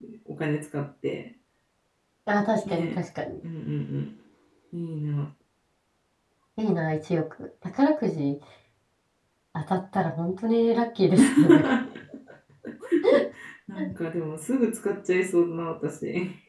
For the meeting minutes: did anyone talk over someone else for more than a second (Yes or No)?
No